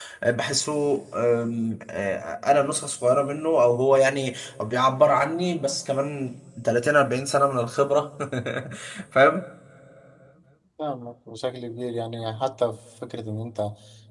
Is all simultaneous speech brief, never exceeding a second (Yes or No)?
Yes